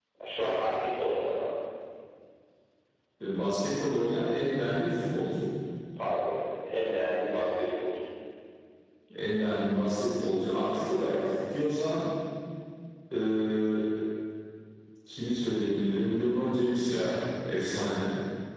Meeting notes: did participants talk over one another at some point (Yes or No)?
No